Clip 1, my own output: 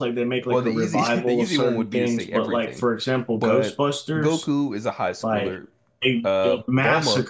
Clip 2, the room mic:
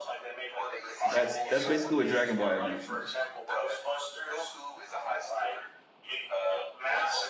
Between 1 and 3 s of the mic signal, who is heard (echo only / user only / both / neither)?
both